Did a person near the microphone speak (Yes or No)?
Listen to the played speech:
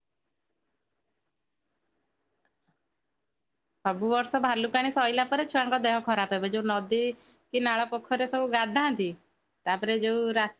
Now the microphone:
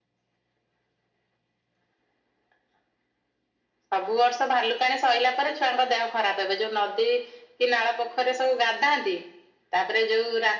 No